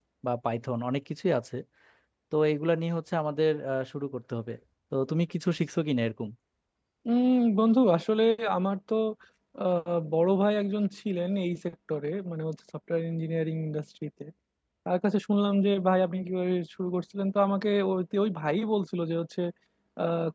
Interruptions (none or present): none